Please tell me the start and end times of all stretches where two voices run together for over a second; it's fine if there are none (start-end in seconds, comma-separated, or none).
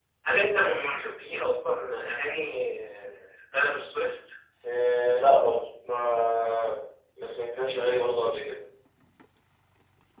none